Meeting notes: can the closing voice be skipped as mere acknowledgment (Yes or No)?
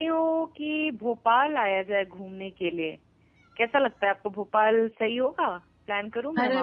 No